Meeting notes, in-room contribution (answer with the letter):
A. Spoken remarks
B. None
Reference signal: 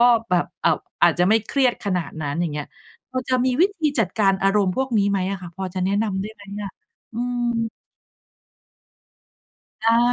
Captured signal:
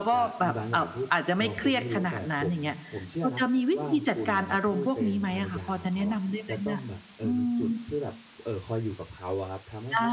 A